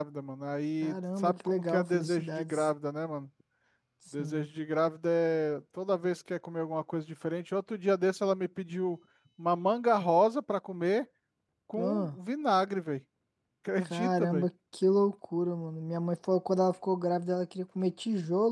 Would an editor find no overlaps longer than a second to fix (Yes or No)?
No